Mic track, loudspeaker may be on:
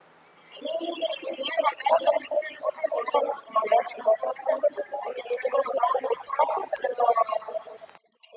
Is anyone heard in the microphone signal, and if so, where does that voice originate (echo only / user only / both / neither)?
echo only